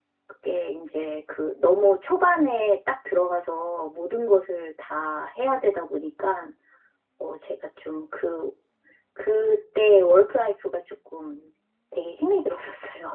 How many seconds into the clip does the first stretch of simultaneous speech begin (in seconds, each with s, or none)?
none